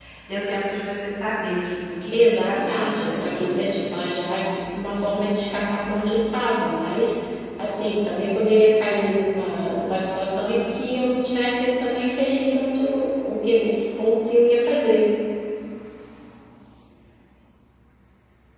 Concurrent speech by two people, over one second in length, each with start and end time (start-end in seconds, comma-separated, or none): 2.1-4.0